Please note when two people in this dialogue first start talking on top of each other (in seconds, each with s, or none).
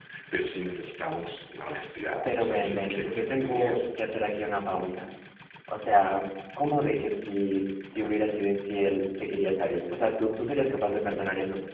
2.2 s